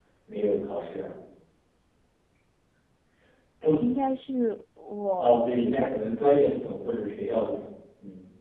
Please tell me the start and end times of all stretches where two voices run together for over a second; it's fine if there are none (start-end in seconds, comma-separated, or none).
5.2-6.4